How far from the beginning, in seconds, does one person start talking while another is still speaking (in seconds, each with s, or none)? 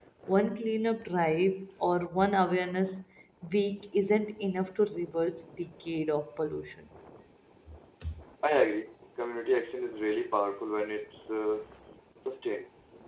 none